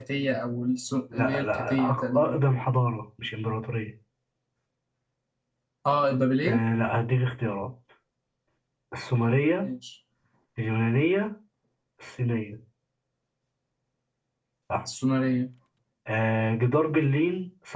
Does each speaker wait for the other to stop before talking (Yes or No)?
No